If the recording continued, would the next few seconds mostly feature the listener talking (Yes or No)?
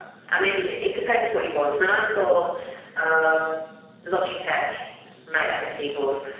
No